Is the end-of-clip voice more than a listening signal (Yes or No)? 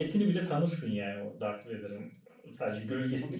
No